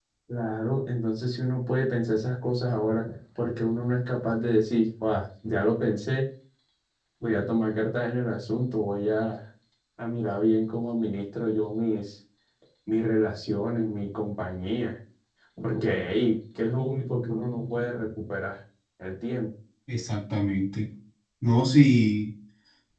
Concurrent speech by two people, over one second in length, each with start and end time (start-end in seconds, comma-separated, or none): none